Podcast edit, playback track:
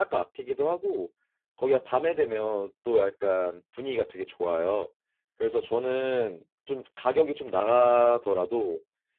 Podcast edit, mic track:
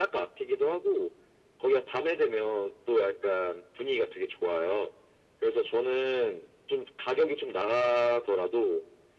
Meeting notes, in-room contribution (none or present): none